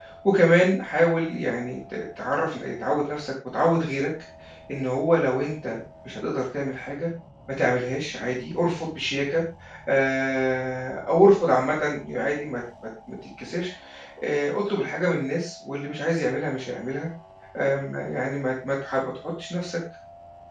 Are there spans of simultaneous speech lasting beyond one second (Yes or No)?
No